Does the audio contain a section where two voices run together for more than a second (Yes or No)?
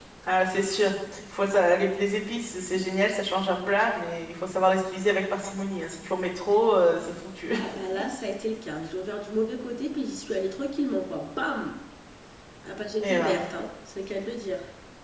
No